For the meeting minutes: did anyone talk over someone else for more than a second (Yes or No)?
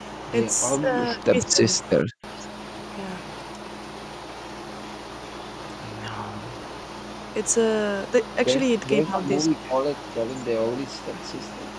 Yes